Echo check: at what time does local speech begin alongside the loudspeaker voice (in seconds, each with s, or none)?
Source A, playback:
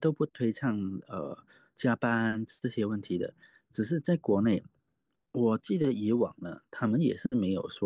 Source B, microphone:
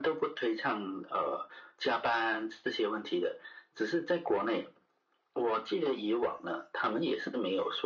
none